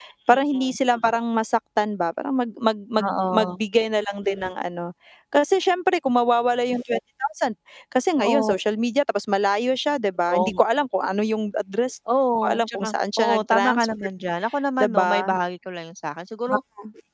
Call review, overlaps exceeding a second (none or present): present